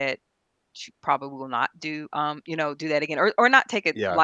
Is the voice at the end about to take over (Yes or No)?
No